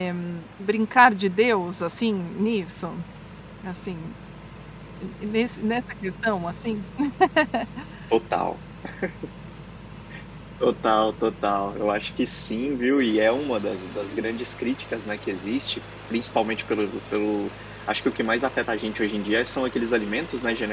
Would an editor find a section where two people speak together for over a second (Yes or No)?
No